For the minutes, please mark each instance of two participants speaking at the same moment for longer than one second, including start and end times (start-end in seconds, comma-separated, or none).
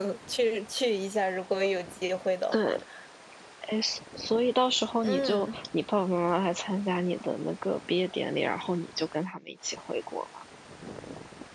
none